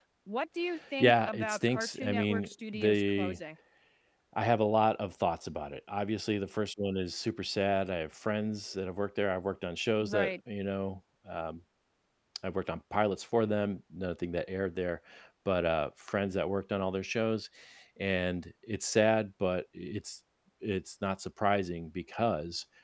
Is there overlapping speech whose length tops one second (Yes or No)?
Yes